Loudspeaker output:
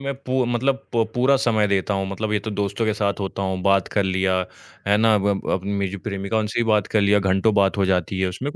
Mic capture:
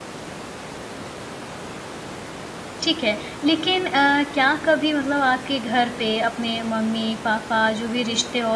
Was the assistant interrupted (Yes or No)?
Yes